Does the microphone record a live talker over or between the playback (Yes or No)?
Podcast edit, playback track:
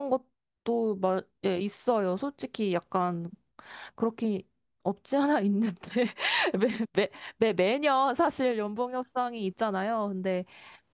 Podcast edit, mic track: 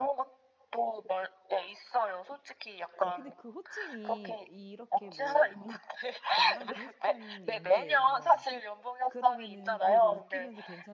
Yes